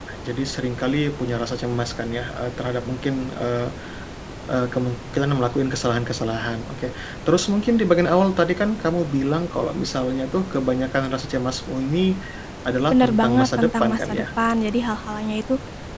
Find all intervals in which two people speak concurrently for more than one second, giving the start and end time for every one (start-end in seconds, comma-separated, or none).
12.9-14.2